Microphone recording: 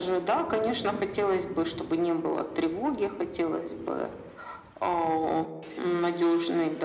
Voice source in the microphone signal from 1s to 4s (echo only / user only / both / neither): echo only